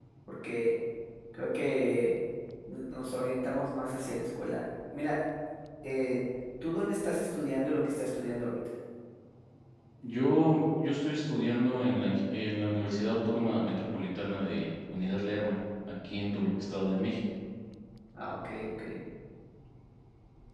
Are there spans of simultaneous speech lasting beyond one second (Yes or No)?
No